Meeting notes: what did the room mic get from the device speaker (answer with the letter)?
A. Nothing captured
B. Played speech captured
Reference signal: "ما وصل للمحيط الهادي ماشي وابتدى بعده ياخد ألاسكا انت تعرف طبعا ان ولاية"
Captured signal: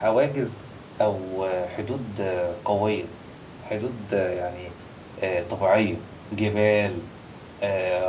A